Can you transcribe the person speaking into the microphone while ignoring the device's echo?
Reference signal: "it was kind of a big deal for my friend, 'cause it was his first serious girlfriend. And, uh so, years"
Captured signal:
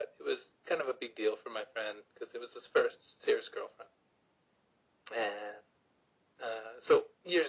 none

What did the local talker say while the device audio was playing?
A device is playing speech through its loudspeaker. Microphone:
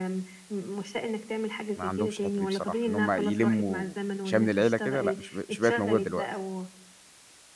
ما عندهمش الحتّة دي بصراحة. إن هم يلموا شمل العيلة كده، لأ، مش بق مش بقت موجودة دلوقتي.

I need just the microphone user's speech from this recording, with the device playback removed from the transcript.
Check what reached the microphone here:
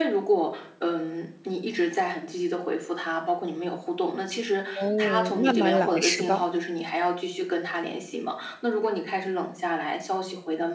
哦，慢慢来，是吧？

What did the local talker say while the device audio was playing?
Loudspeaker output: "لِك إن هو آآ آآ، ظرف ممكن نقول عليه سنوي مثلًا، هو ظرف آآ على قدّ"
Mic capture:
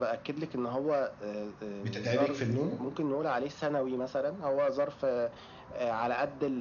بتتعبِك في النوم؟

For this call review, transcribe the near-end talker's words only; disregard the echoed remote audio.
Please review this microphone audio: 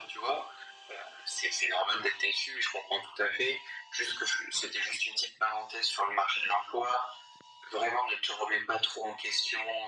none

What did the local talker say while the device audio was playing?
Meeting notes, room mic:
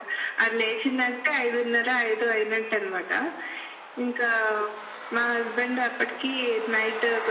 none

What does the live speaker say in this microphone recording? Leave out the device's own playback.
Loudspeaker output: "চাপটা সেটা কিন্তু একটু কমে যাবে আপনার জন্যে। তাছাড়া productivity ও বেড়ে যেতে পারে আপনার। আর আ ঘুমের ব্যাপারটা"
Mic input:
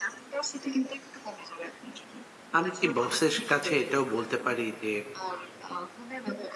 আমি কি বসের কাছে এটাও বলতে পারি যে,

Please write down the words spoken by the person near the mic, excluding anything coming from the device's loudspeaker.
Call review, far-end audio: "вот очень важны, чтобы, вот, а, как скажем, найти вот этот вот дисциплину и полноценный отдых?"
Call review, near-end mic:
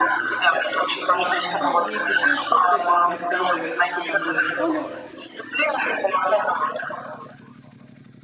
э, там, полдник, ещё что-то там, рассказывает, чё там было в школе,

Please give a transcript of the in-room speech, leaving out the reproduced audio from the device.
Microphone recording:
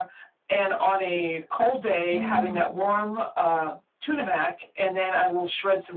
Oh.

